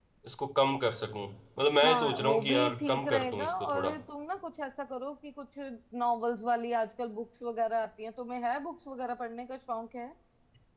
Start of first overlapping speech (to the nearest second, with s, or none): 2 s